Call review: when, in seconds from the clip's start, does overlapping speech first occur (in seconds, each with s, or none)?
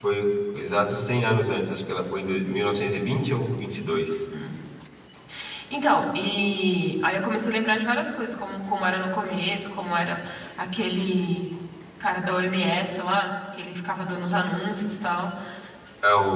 none